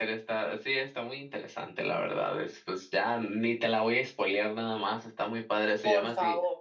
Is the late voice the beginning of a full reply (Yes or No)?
No